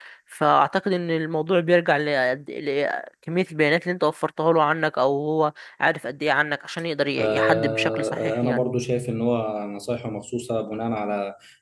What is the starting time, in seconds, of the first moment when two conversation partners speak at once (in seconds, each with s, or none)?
7.2 s